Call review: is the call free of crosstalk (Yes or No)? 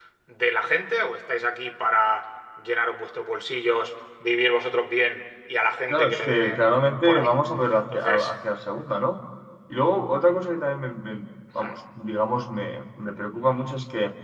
No